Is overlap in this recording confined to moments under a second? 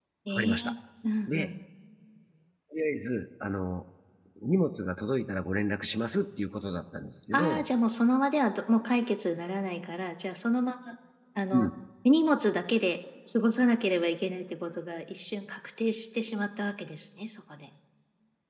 Yes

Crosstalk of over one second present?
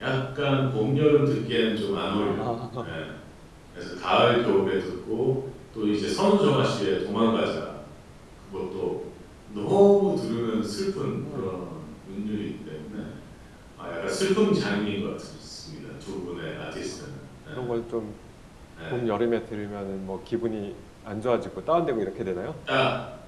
No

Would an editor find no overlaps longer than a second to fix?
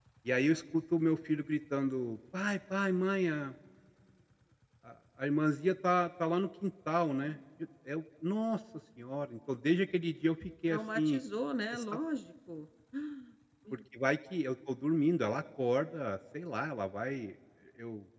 Yes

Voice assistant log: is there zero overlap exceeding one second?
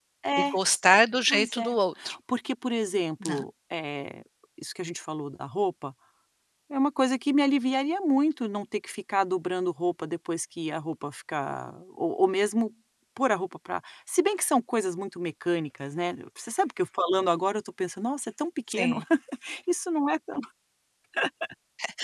Yes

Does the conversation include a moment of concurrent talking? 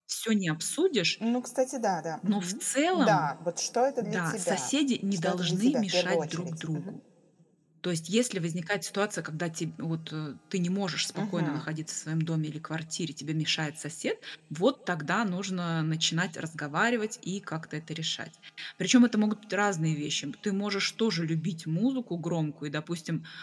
Yes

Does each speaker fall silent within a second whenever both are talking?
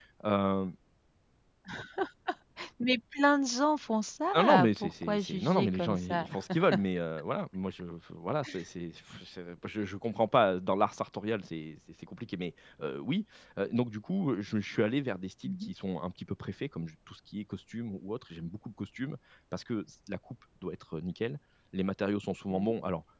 No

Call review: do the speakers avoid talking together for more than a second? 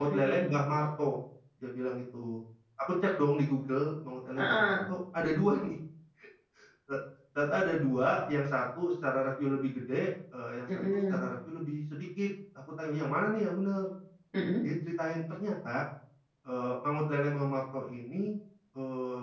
Yes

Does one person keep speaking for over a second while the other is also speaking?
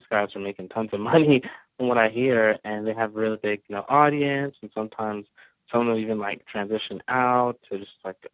No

